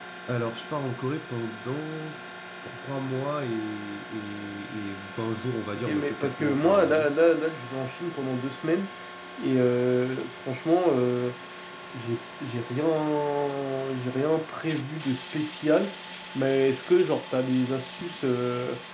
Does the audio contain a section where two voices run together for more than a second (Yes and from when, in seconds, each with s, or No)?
Yes, from 5.8 s